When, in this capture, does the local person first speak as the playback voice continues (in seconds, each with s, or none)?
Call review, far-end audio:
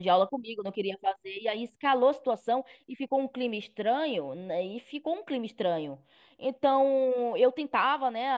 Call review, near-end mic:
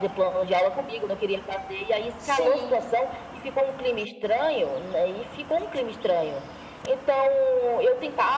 2.2 s